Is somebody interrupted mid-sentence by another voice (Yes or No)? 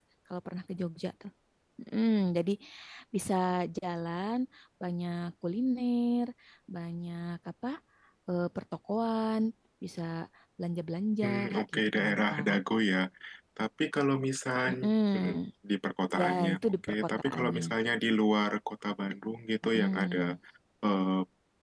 Yes